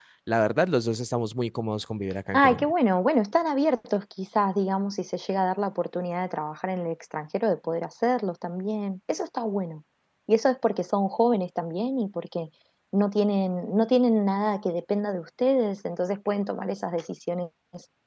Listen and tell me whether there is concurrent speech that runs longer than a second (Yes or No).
No